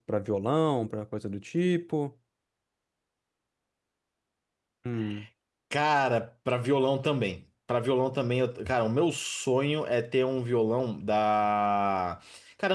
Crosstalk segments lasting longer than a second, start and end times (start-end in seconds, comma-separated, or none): none